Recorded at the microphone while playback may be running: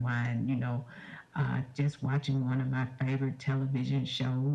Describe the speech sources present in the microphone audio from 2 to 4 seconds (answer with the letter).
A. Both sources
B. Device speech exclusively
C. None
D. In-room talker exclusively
B